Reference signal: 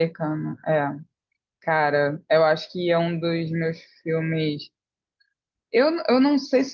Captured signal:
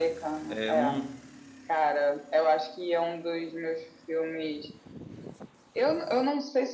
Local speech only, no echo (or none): É um.